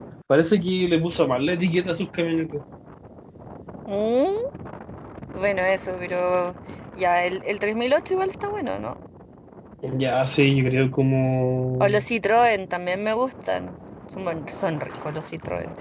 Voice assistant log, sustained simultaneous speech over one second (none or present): none